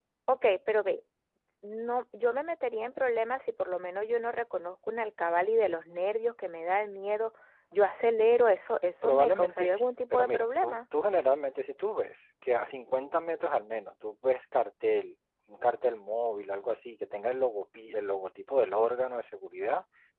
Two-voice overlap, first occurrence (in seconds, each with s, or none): 9.0 s